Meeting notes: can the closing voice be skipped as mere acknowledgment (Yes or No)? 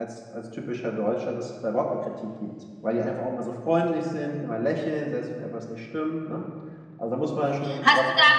No